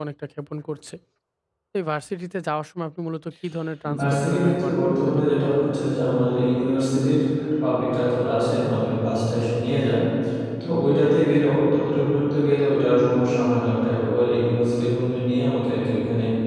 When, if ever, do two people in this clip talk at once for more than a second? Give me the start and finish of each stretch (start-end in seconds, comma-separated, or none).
4.0-5.5